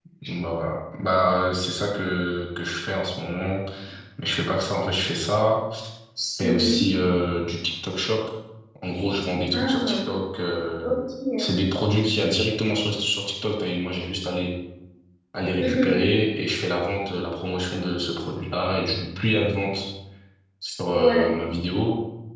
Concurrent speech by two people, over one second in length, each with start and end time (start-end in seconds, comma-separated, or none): none